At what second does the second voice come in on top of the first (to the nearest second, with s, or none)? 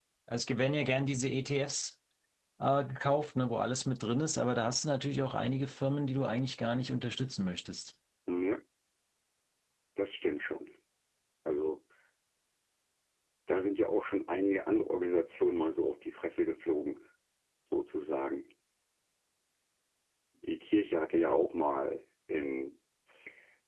none